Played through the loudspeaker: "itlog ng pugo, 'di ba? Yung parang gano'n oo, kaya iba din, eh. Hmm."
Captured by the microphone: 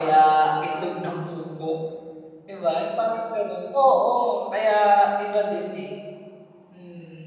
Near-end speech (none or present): none